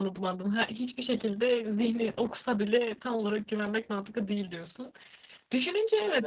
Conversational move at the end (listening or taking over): listening